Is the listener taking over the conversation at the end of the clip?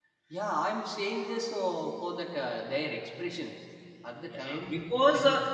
Yes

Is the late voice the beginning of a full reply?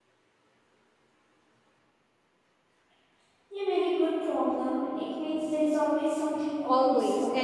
Yes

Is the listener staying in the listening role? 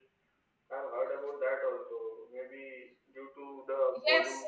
Yes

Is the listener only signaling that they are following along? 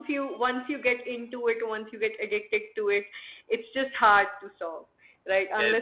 No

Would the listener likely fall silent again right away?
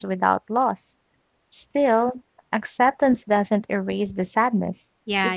No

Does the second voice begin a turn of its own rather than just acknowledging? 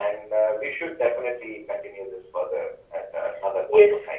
Yes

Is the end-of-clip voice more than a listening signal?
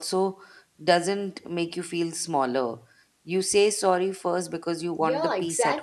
Yes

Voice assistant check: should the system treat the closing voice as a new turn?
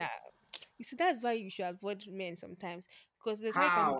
Yes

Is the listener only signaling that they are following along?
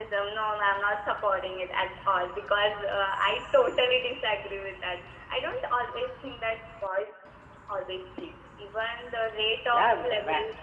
No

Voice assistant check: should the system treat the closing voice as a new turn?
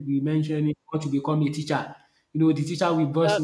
No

